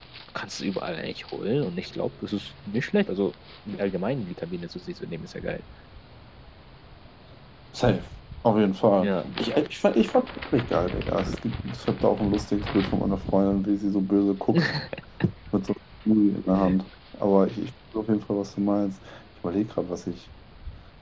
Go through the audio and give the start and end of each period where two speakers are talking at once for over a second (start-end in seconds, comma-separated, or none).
none